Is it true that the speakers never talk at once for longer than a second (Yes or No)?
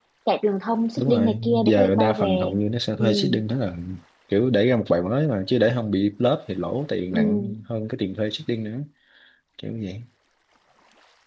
No